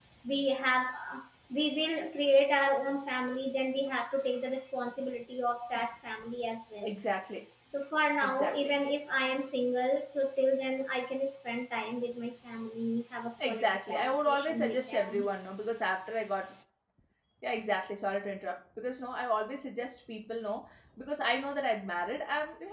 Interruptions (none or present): present